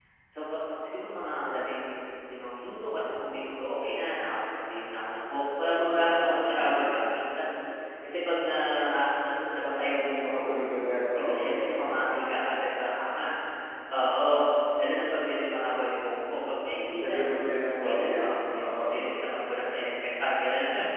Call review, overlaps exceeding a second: present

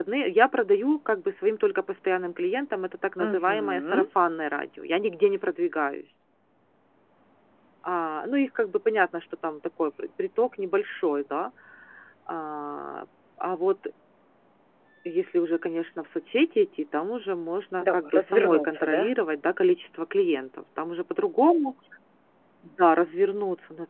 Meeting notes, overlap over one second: present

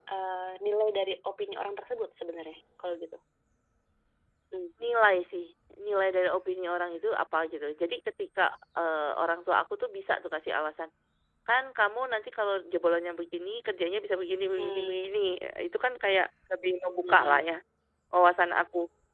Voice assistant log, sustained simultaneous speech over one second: none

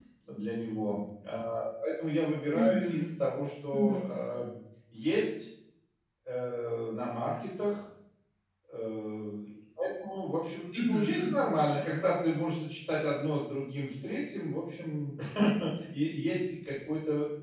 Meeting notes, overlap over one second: none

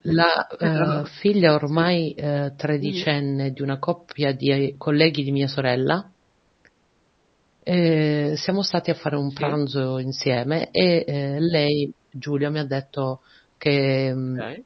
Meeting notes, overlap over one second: none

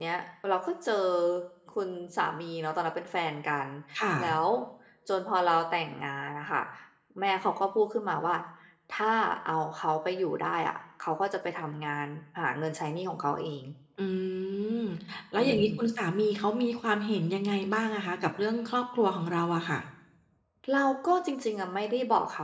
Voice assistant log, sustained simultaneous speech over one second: none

